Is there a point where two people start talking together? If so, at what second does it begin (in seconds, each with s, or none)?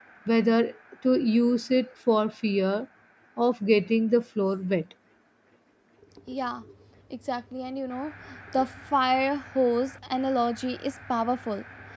none